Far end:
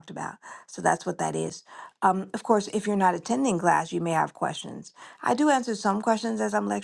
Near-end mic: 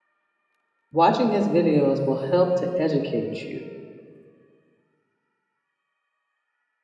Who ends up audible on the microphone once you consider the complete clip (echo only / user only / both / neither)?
user only